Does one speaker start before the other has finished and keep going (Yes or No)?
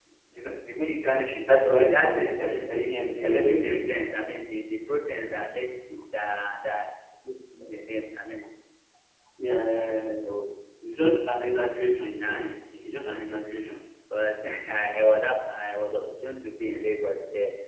Yes